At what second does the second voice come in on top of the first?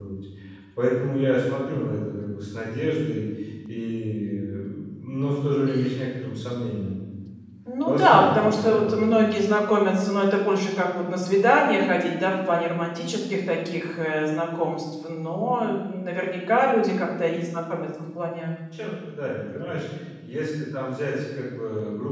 7.9 s

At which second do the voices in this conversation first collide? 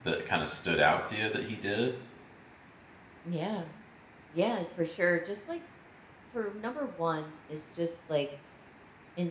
none

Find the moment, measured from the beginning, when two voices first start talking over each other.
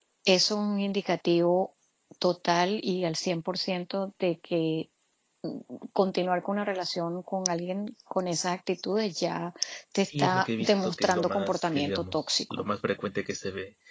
10.0 s

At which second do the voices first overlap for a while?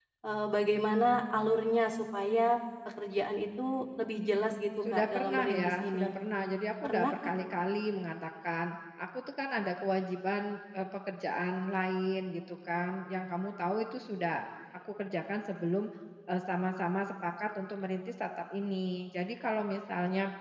4.9 s

